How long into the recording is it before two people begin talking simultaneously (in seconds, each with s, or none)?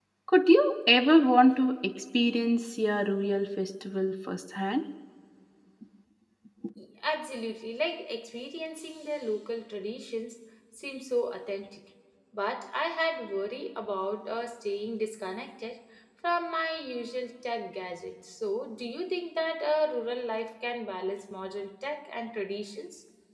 none